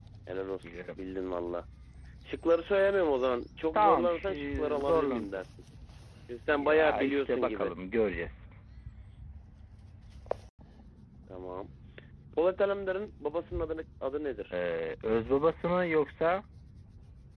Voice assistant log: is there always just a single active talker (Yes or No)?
No